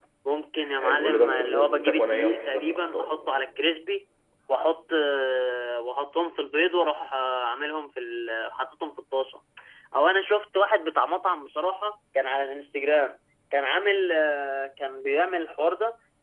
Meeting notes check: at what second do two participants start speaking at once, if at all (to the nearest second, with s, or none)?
1 s